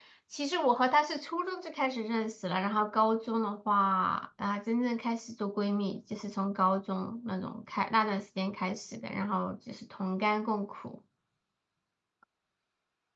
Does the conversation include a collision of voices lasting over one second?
No

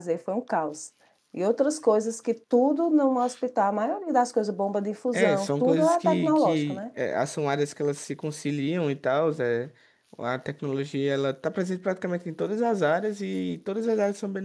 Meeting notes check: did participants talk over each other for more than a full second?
Yes, from 5.1 s

